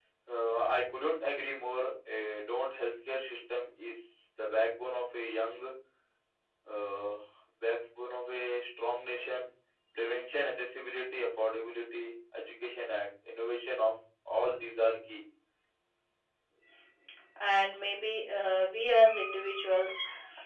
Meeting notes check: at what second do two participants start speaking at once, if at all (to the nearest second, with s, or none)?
none